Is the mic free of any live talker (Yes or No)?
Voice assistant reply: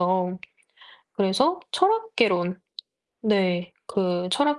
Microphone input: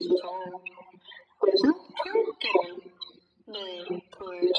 Yes